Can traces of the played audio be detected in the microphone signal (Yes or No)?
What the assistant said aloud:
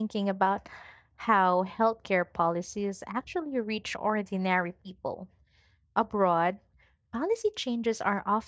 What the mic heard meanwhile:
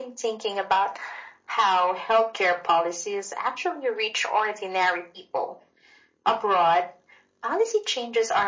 Yes